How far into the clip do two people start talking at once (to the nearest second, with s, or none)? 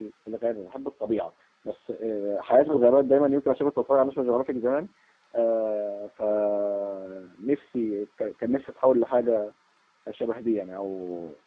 none